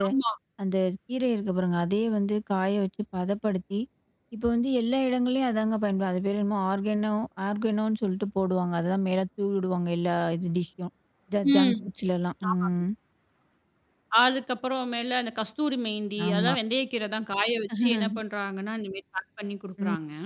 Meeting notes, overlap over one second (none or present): none